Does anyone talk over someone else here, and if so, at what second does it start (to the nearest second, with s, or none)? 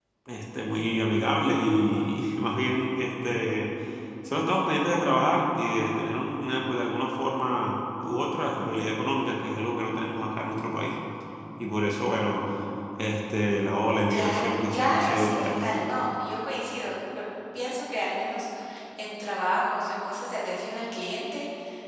14 s